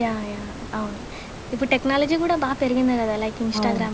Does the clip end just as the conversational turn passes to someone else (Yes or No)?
No